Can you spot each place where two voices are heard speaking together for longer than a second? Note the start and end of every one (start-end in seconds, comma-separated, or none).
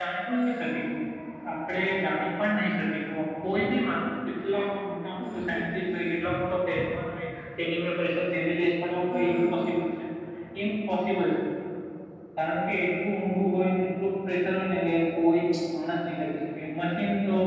none